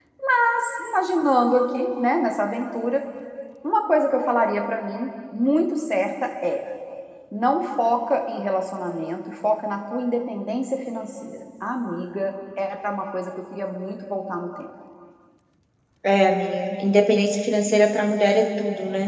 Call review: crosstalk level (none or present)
none